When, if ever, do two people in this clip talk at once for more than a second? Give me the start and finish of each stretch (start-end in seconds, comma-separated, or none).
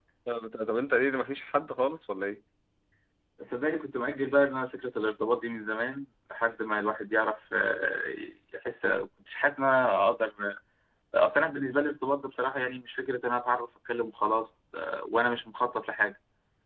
none